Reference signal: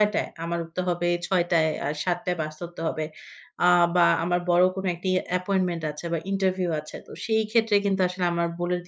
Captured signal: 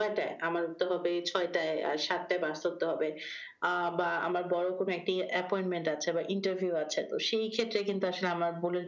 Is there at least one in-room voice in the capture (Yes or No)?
No